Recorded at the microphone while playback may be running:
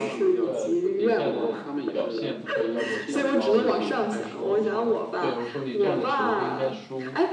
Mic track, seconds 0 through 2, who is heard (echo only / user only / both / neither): both